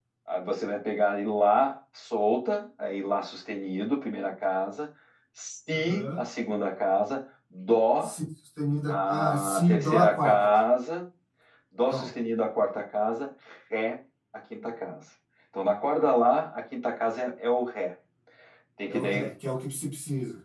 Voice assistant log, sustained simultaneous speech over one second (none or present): present